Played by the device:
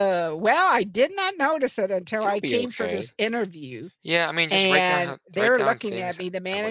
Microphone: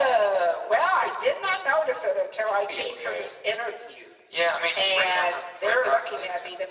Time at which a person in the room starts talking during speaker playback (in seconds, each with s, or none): none